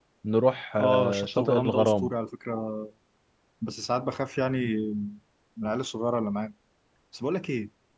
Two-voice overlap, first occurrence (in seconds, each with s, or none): 0.8 s